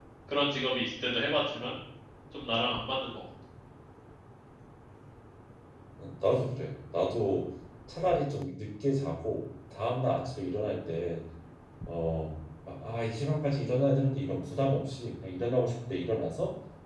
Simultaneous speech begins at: none

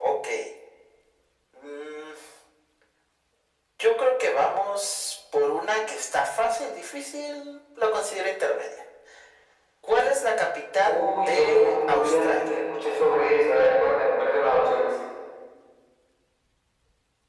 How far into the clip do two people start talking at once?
10.8 s

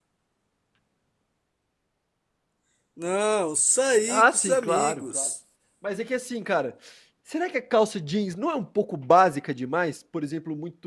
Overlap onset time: 4.1 s

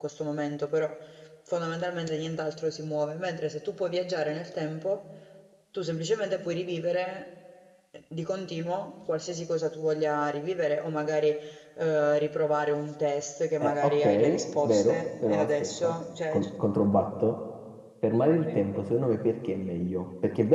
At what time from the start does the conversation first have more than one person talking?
13.6 s

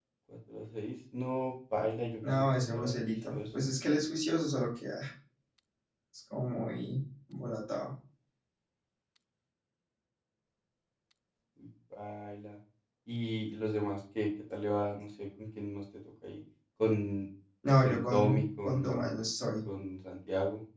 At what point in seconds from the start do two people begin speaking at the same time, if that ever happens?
2.2 s

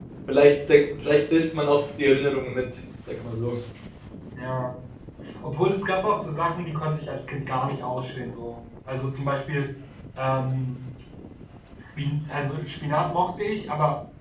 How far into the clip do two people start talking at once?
none

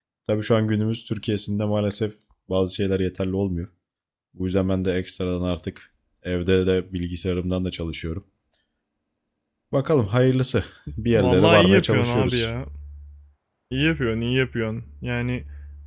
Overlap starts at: 11.1 s

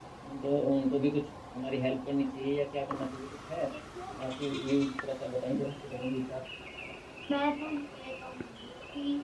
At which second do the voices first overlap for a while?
none

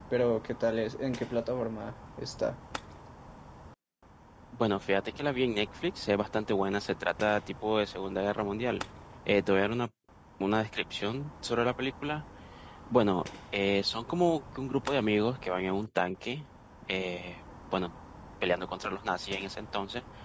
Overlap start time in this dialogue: none

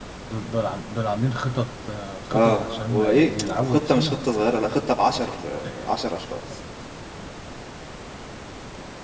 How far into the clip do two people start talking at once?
2.3 s

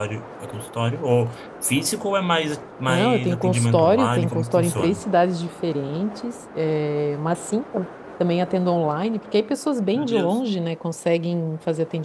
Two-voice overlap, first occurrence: 2.9 s

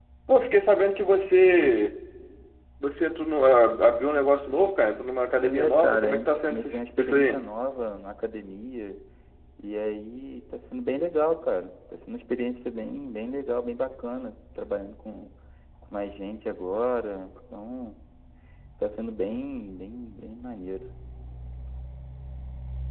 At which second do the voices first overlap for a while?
5.4 s

